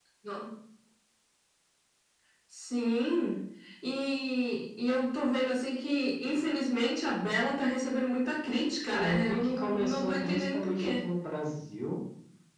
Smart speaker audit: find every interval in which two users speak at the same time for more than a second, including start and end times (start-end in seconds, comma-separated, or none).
8.9-10.9